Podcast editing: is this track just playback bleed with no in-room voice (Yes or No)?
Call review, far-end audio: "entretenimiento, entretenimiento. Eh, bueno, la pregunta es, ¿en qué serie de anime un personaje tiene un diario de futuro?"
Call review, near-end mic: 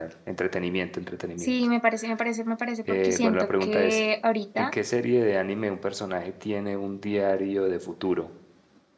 No